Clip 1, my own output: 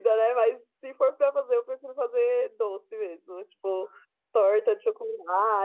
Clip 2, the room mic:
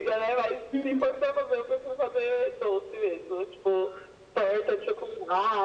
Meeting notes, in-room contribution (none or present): present